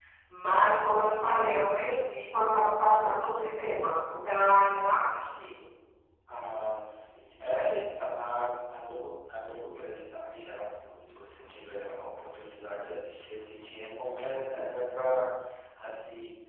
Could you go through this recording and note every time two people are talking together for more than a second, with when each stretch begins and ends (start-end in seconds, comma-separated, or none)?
none